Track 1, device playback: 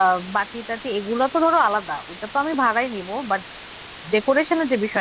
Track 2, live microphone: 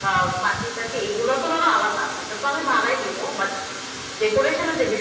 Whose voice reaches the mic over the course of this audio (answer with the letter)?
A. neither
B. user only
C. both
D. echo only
D